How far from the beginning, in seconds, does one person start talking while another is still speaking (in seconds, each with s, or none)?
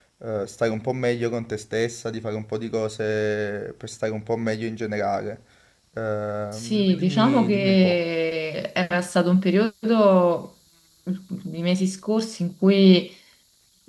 6.5 s